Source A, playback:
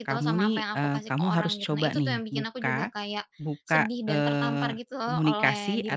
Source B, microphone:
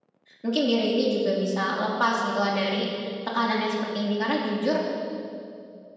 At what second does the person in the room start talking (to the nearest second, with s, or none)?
0 s